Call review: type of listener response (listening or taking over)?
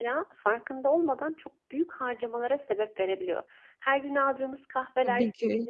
listening